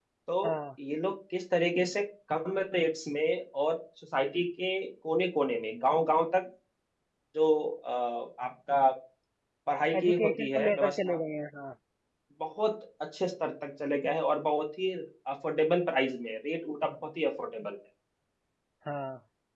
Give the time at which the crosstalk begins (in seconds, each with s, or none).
10.0 s